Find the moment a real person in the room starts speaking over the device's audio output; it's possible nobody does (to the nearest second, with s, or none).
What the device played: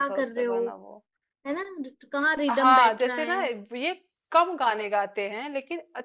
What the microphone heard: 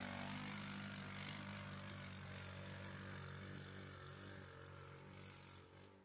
none